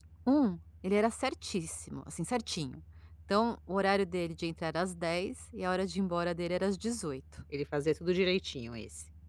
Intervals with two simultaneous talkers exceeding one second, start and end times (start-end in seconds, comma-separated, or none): none